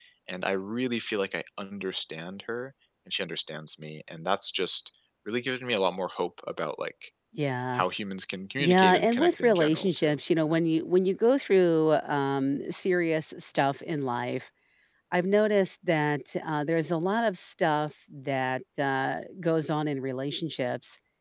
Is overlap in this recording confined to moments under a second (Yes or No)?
No